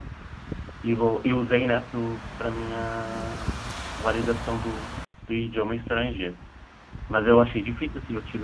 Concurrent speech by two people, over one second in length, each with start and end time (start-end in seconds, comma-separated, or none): none